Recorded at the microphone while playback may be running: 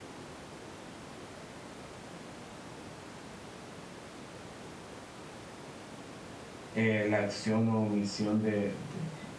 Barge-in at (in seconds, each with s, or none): 6.7 s